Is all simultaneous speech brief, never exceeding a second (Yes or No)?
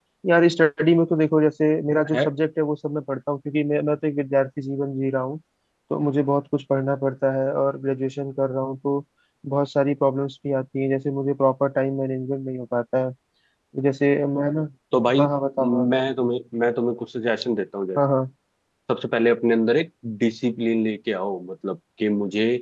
Yes